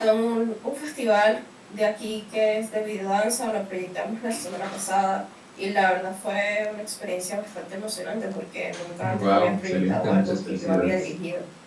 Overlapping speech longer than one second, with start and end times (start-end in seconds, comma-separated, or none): 9.0-11.1